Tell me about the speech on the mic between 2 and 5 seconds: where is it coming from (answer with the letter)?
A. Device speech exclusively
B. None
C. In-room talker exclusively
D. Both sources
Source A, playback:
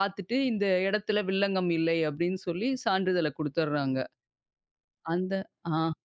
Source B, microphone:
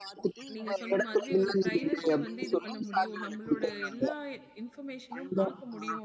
D